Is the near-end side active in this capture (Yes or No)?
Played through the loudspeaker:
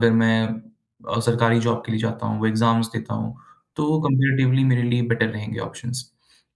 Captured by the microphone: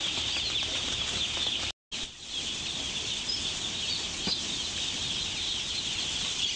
No